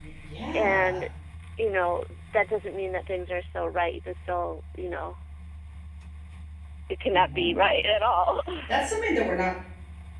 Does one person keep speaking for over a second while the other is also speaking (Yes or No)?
No